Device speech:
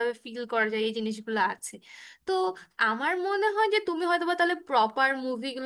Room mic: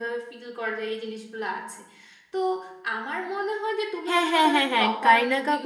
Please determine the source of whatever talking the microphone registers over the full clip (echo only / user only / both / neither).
both